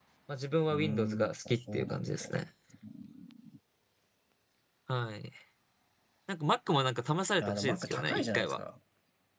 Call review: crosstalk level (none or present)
present